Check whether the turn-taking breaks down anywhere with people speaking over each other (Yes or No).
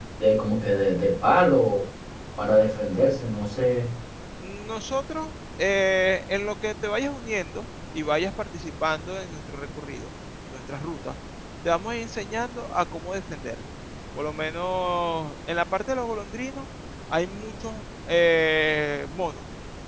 No